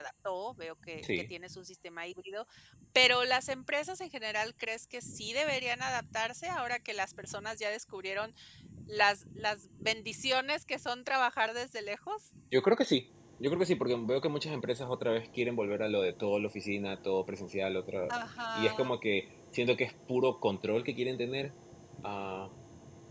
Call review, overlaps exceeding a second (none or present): none